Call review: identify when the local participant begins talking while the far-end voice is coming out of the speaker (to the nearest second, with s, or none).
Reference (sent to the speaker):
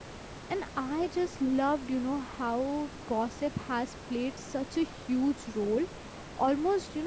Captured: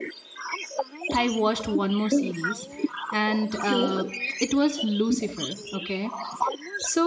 1 s